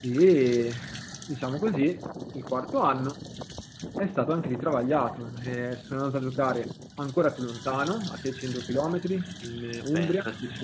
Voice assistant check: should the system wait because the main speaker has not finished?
No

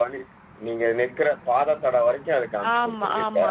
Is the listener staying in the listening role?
No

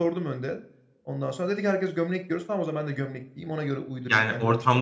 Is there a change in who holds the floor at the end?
Yes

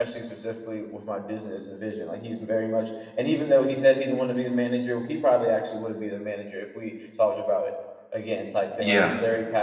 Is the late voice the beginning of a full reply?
No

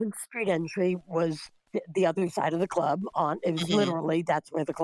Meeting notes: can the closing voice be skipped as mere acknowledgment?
Yes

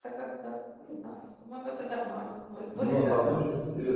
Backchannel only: No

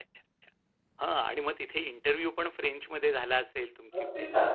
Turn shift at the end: Yes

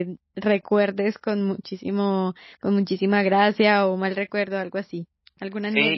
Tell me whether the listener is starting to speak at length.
Yes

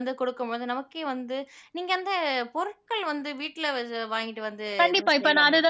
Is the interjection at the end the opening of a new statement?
Yes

